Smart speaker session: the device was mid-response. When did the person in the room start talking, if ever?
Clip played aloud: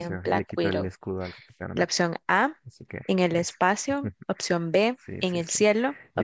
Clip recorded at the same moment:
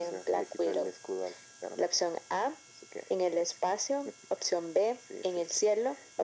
none

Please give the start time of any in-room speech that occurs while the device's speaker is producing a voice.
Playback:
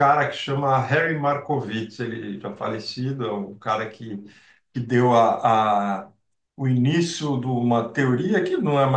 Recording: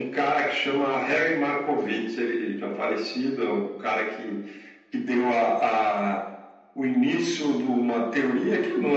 none

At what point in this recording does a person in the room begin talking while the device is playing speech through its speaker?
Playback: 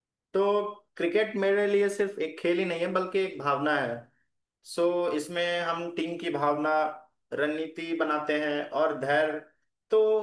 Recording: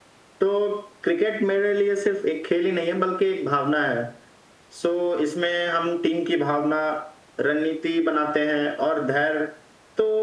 none

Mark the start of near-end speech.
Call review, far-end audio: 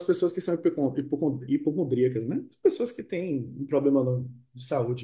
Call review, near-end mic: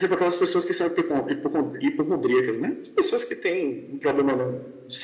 none

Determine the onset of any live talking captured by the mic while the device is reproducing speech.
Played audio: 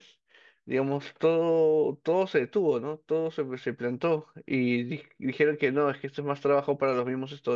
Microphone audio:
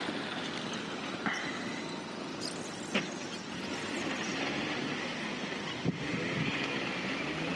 none

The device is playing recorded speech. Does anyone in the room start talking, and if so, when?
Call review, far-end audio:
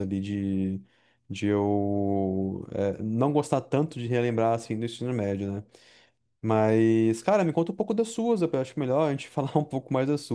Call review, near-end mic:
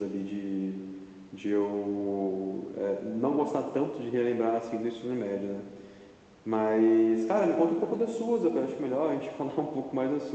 none

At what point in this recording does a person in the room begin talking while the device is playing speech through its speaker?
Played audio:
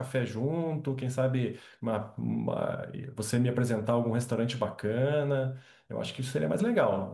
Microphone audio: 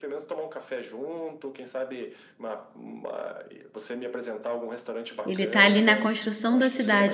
5.2 s

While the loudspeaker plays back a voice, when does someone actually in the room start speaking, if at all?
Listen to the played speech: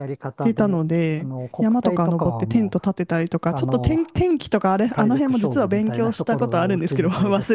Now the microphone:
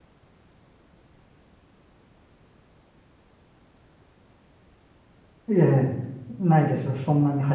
5.5 s

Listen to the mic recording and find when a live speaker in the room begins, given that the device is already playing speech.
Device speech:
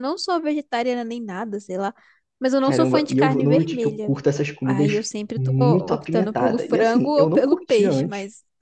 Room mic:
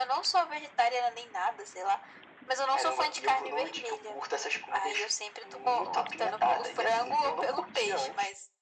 none

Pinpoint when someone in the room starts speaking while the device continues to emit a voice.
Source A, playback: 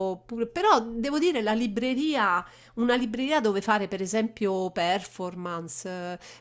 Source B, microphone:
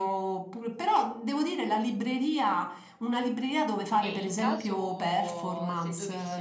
4.0 s

